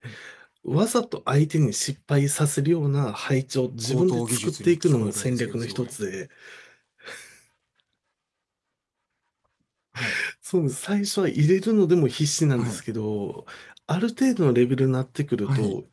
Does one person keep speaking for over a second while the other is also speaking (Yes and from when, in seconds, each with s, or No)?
Yes, from 3.8 s